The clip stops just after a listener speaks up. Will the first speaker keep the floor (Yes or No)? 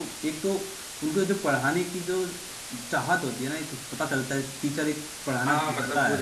No